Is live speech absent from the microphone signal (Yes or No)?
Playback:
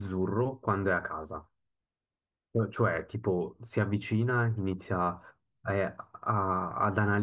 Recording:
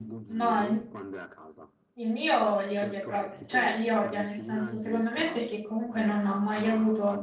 No